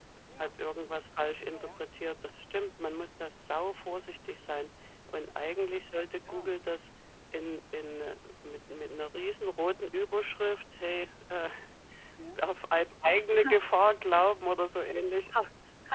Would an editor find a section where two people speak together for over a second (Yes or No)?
No